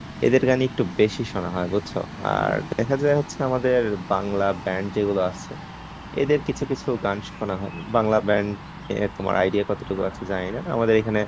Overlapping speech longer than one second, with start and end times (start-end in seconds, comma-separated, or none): none